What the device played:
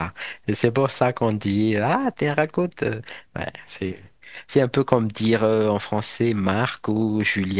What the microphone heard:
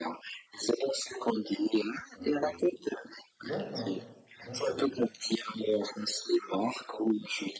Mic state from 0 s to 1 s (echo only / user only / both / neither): echo only